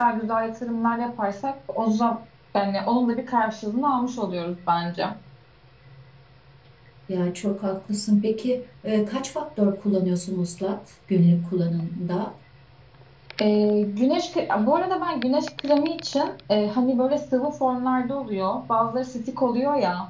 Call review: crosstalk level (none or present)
none